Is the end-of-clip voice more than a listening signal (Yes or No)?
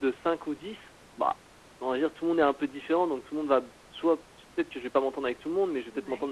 No